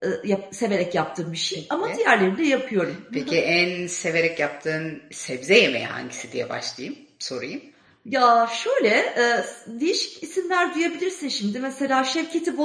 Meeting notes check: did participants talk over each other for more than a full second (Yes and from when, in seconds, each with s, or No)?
No